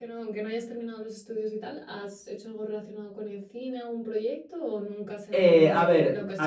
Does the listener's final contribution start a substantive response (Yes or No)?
Yes